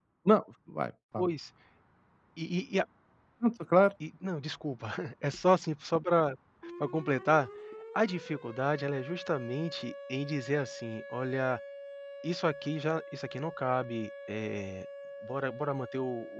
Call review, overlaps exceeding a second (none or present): none